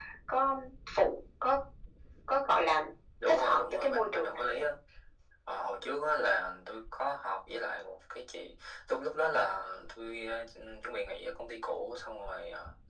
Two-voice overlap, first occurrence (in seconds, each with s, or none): 3.3 s